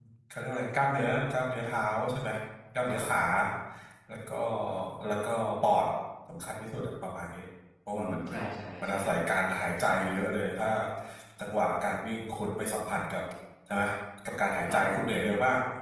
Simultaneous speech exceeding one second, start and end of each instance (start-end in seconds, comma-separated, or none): none